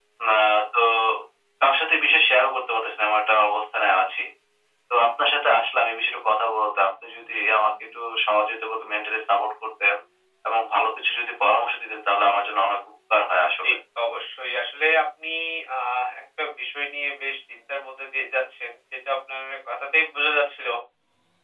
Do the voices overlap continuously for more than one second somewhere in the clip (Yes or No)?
No